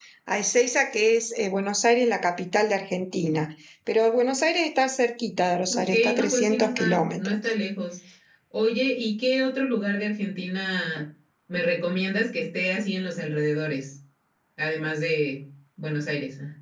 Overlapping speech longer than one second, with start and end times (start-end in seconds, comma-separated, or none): 5.7-7.3